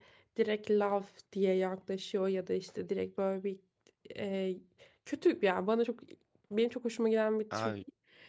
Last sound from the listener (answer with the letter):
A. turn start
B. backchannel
B